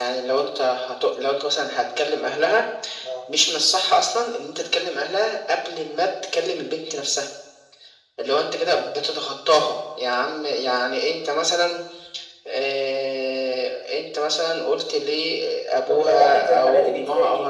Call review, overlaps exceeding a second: present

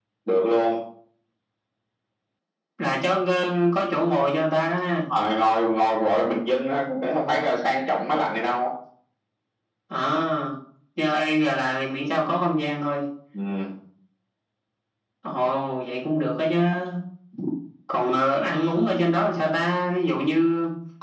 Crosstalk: none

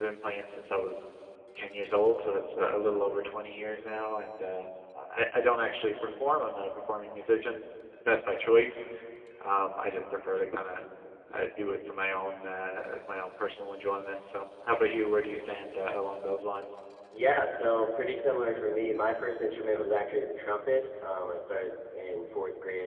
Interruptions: none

